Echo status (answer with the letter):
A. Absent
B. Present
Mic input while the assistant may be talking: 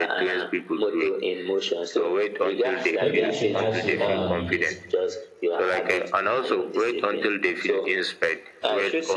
B